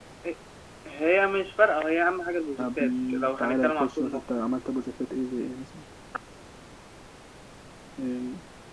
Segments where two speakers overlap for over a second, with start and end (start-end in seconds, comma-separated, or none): 2.6-4.5